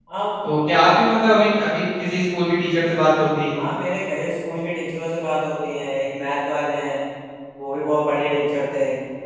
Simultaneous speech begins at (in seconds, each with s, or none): none